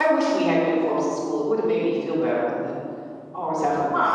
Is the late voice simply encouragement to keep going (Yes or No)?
No